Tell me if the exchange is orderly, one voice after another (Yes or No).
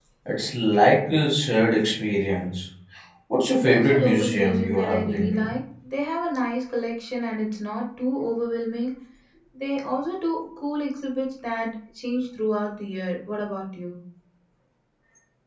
No